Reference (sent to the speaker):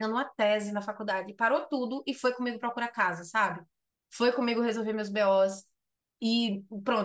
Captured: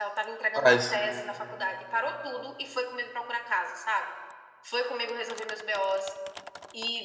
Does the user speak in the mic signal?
Yes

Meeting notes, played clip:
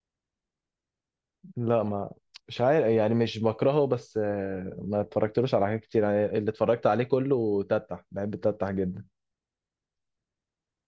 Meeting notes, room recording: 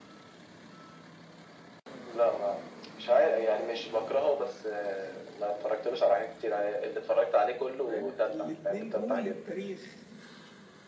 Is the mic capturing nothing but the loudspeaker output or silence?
No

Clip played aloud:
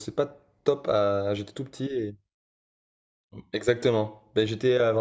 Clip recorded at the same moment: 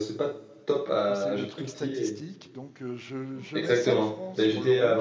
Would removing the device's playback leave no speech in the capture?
No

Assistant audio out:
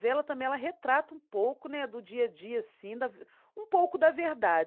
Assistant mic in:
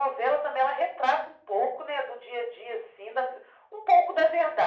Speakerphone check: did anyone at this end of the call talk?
No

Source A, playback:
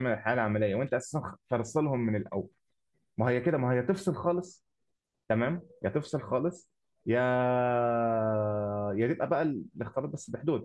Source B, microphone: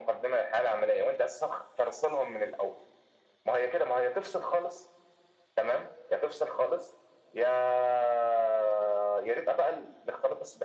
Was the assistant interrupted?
No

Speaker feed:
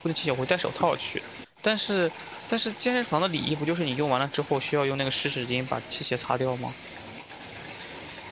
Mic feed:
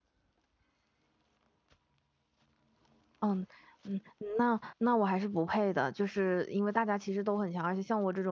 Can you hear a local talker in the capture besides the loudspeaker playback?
Yes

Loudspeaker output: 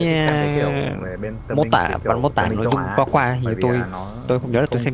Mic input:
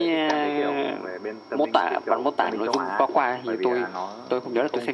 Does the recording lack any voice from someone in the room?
Yes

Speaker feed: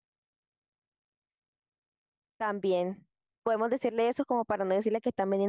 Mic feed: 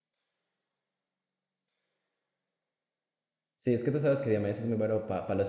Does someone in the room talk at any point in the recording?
Yes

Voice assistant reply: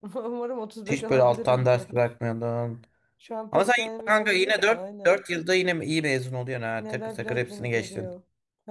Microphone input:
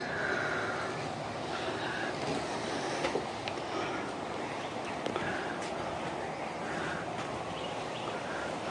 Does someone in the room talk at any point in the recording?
No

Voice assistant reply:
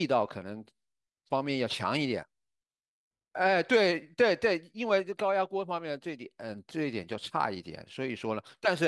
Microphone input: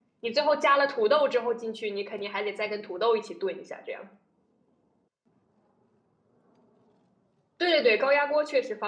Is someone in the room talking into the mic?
Yes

